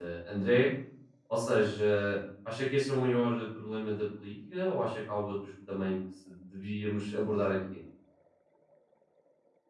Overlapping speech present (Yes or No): No